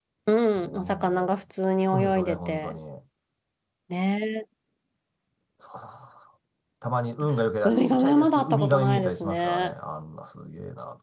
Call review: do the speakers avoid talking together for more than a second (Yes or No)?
No